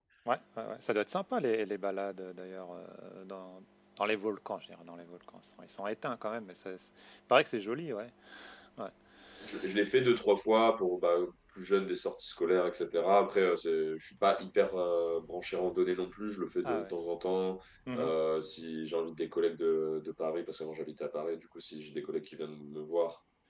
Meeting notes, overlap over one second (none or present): none